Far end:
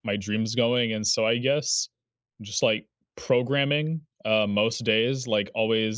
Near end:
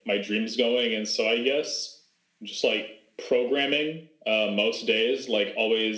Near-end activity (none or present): none